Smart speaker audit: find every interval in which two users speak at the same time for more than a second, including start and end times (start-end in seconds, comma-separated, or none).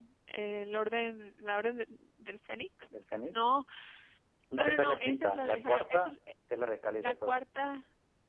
4.5-6.1